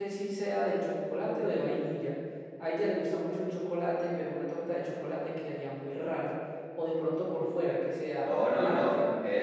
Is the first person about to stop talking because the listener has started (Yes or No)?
Yes